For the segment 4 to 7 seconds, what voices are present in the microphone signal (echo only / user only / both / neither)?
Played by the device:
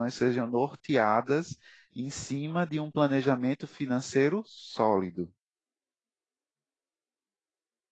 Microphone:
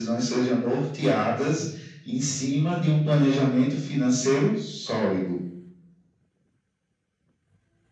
echo only